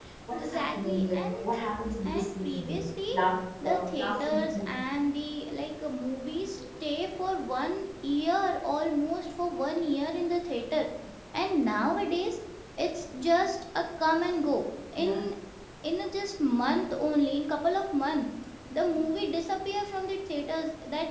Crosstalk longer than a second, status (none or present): present